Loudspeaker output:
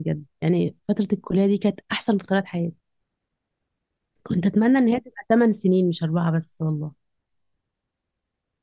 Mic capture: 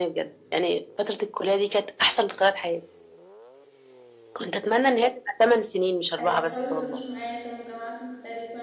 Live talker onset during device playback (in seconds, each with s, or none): 6.2 s